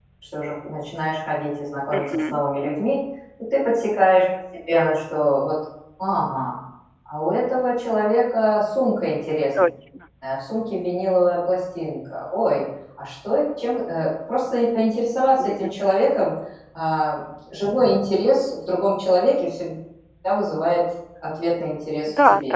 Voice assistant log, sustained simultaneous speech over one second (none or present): none